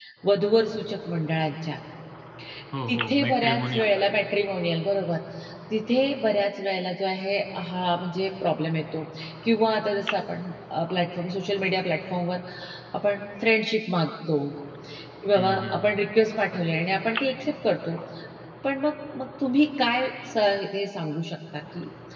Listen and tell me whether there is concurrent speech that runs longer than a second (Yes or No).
Yes